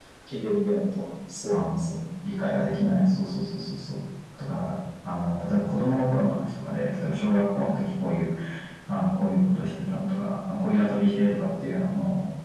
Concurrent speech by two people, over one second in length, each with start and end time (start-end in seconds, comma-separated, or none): none